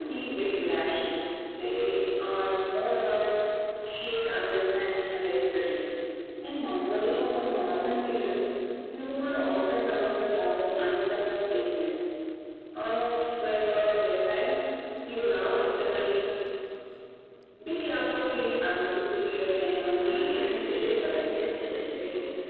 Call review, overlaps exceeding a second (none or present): present